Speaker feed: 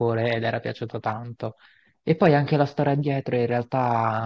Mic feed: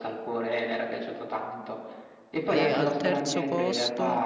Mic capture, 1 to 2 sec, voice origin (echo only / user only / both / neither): echo only